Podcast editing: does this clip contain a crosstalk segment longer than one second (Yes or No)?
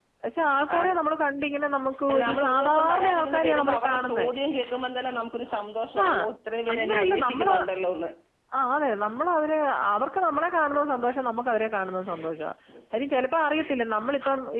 Yes